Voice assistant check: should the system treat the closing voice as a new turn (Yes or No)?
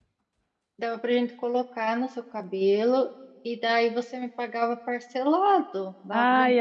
Yes